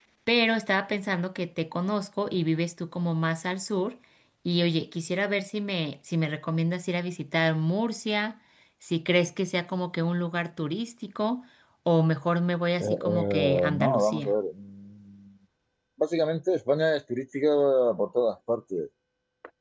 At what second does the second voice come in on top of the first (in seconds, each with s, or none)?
12.8 s